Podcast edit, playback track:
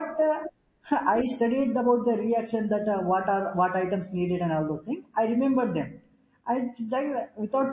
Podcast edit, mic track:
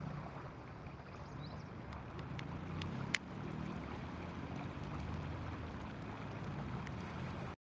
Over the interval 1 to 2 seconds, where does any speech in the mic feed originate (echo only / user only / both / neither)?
neither